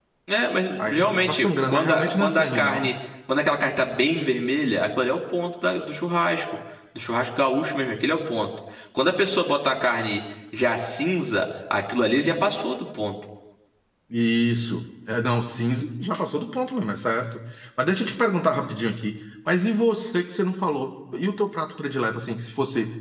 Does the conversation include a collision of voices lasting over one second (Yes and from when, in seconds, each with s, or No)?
Yes, from 0.8 s